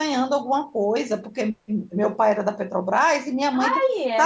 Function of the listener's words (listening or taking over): listening